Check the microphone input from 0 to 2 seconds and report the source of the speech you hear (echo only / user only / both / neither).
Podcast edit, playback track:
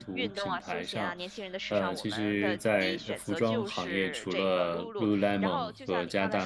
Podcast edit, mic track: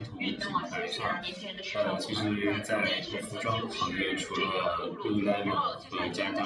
echo only